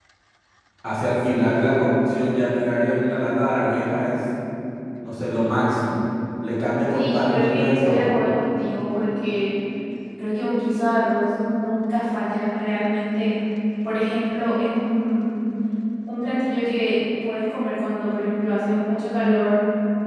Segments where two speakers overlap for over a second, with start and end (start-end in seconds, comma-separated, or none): 6.9-8.1